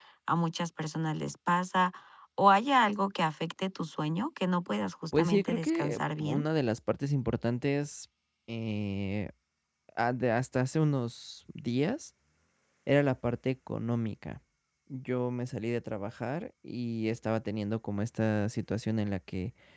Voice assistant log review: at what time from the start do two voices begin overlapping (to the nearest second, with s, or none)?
5 s